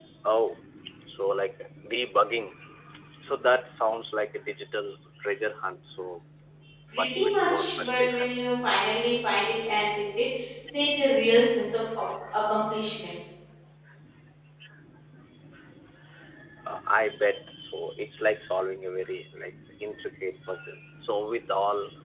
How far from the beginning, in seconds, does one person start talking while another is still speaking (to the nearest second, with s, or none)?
7 s